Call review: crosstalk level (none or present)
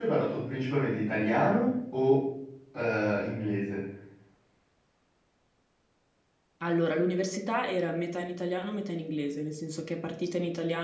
none